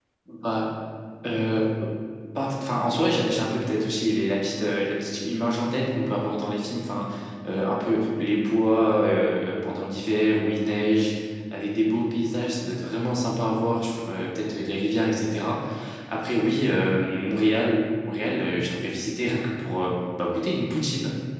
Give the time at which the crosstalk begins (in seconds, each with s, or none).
none